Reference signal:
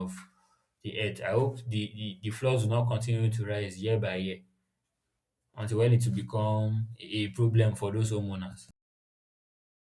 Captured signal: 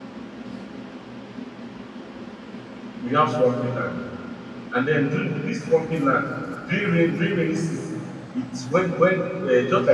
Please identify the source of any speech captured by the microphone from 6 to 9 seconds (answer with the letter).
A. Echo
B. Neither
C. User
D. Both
C